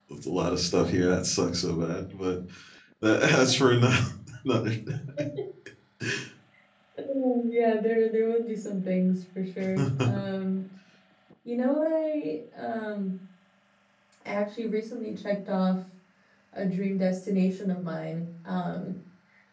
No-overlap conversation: Yes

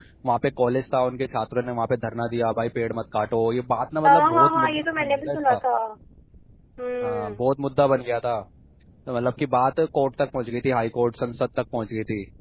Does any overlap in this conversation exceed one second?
Yes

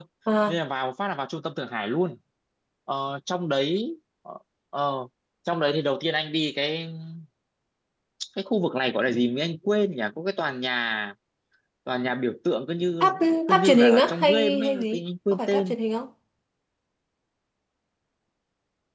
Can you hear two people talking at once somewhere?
Yes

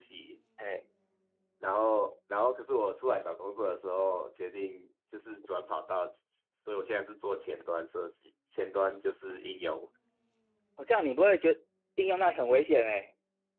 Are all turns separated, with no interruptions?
Yes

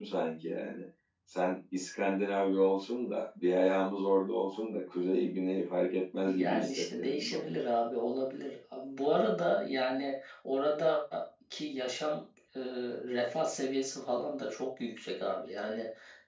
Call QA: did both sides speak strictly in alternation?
No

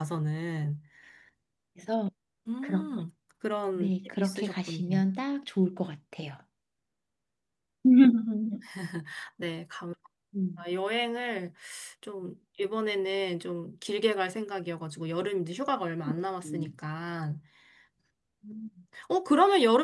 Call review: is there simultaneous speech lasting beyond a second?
Yes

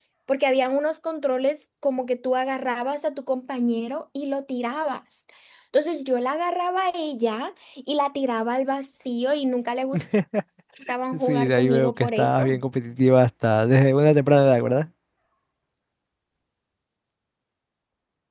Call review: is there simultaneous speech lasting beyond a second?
Yes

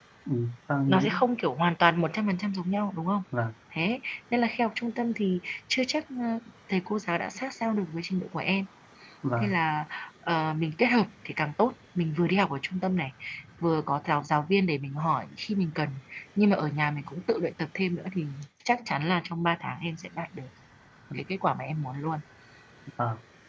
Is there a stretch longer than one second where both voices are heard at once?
No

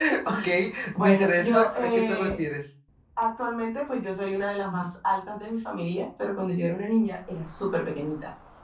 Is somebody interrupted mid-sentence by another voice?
Yes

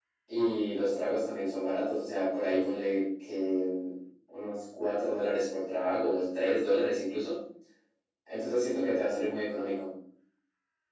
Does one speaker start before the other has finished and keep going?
No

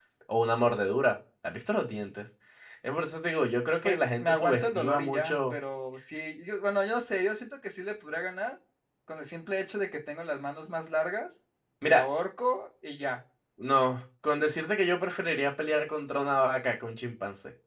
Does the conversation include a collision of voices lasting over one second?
Yes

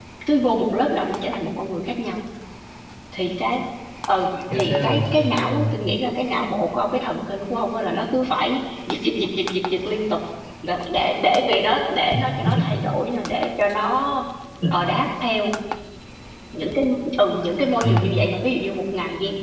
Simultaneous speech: Yes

